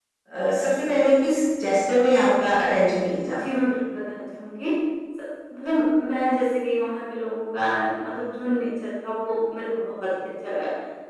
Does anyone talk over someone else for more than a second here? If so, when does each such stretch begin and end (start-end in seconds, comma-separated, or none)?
none